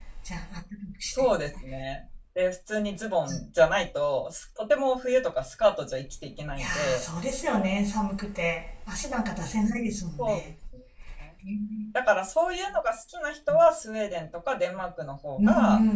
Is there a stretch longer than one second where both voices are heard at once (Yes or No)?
No